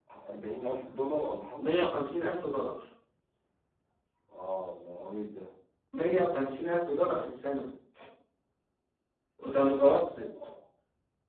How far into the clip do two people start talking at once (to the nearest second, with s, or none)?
none